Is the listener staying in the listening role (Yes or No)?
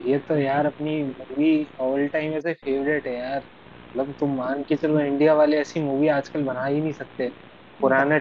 Yes